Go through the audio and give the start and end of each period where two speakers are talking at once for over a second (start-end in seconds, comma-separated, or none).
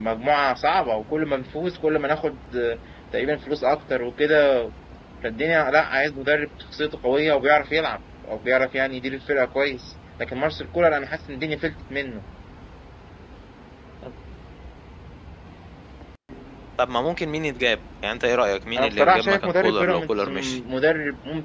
18.8-20.6